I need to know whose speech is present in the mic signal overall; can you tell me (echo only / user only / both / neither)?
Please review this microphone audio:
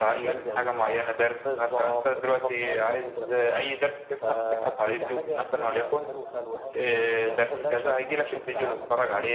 both